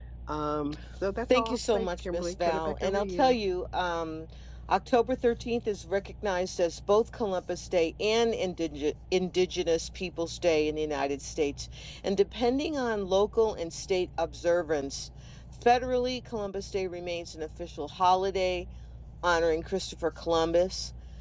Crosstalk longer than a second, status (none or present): present